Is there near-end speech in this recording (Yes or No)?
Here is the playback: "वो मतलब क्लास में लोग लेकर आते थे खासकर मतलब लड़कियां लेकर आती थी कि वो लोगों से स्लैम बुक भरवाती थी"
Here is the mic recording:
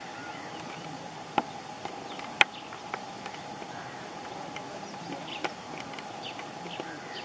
No